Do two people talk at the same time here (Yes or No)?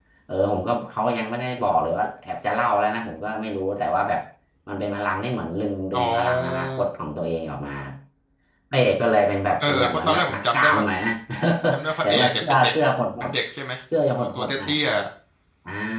Yes